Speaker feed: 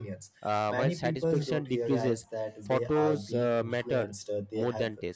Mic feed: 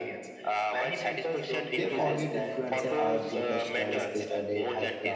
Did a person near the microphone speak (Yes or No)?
Yes